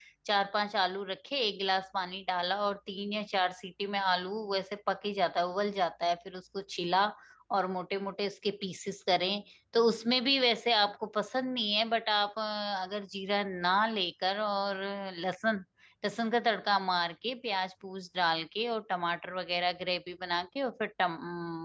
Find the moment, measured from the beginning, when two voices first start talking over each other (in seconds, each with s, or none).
none